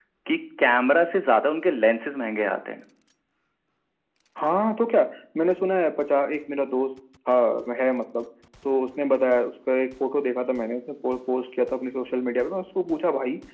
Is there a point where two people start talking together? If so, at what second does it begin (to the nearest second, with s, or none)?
none